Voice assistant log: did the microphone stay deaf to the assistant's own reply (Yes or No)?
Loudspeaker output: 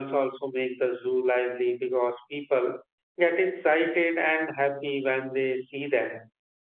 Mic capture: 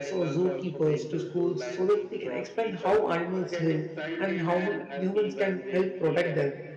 No